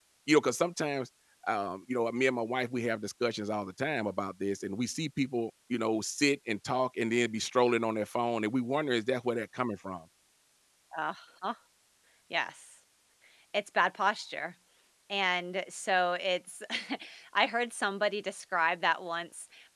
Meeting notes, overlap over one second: none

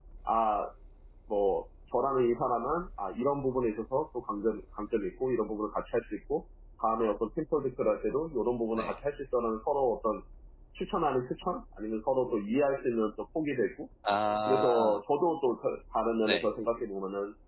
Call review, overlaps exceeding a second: none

